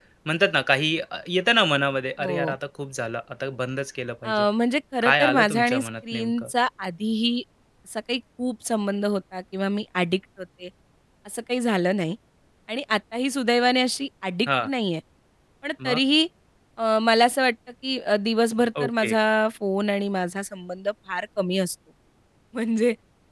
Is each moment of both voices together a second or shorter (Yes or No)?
No